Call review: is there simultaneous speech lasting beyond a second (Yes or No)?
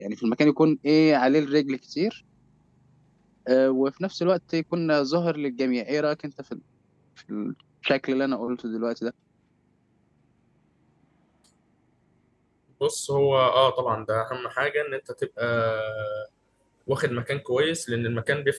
No